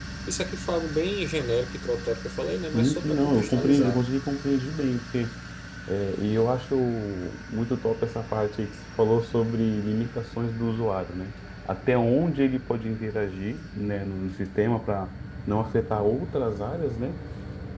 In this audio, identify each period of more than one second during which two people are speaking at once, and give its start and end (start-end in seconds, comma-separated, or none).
2.7-4.0